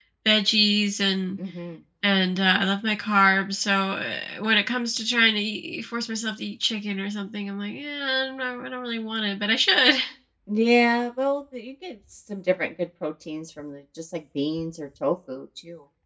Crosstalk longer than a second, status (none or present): none